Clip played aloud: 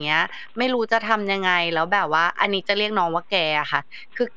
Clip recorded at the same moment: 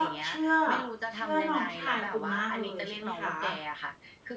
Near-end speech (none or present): present